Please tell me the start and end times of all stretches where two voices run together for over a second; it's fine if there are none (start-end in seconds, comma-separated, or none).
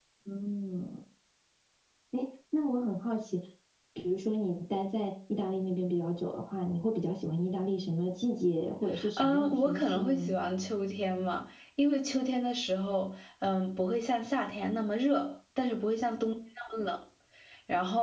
9.2-10.4